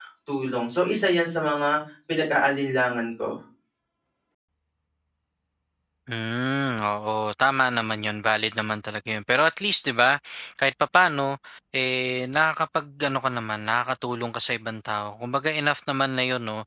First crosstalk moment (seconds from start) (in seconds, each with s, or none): none